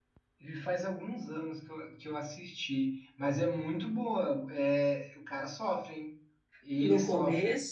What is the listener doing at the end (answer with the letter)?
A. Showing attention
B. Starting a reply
B